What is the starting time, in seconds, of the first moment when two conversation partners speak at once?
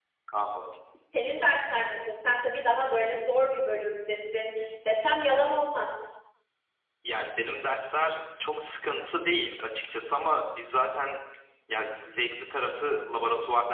none

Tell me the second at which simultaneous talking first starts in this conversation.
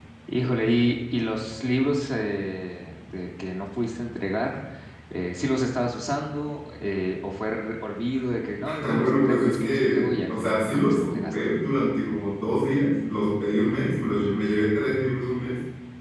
9 s

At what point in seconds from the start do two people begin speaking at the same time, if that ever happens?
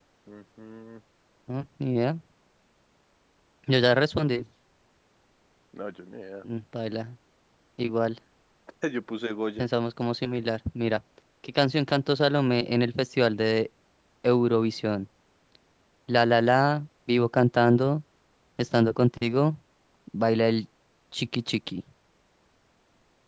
none

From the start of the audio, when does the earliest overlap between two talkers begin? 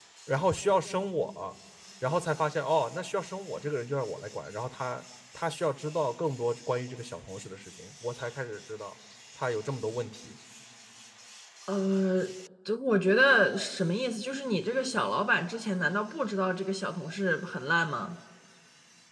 none

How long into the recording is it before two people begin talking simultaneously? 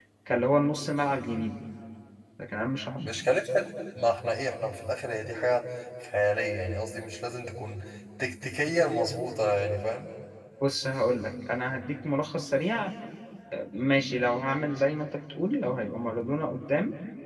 none

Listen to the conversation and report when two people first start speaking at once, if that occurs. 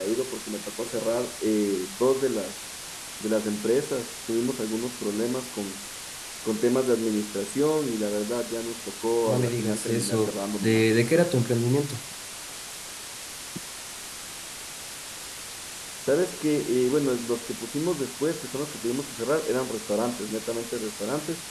9 s

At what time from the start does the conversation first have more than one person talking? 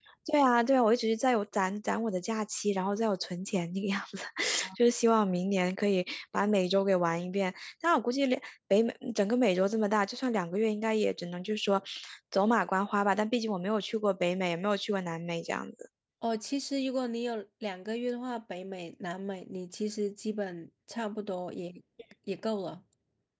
none

